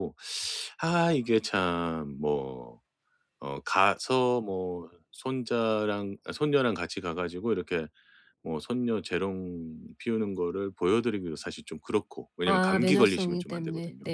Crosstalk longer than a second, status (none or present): present